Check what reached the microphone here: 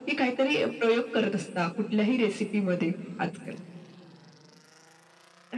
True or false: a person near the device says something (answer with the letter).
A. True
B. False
B